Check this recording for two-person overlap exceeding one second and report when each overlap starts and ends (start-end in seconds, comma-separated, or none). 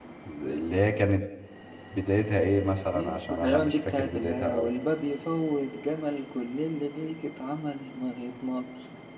2.9-4.5